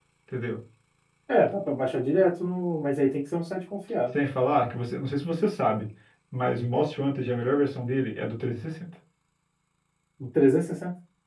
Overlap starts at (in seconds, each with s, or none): none